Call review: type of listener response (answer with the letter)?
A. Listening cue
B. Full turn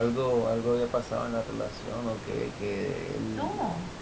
A